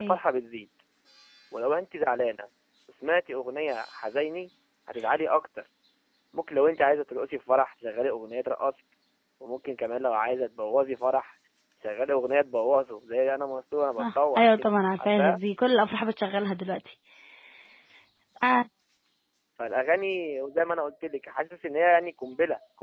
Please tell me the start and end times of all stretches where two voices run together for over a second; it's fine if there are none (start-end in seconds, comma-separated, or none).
14.0-15.4